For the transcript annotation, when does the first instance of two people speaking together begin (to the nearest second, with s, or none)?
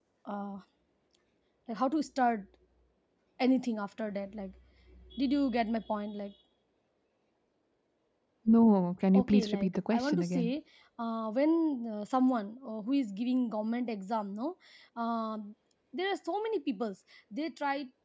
9 s